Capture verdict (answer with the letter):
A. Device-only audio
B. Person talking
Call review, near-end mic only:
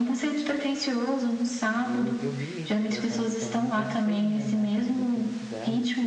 B